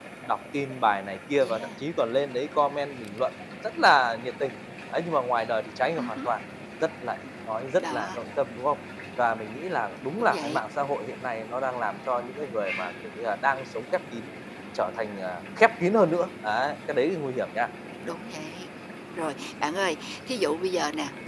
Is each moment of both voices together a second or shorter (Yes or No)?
Yes